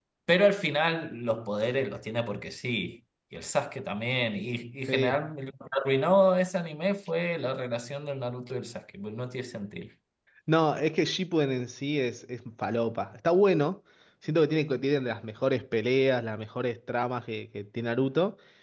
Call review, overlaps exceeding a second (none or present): none